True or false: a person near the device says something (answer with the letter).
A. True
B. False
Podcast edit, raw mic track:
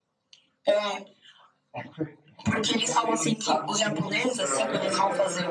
A